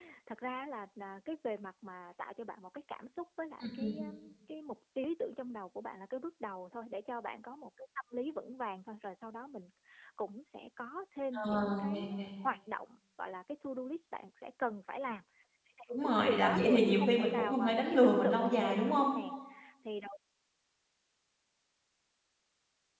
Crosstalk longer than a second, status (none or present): present